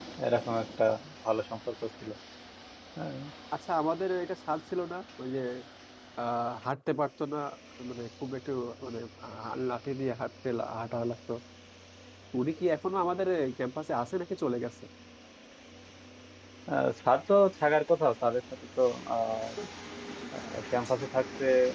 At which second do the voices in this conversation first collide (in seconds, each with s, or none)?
none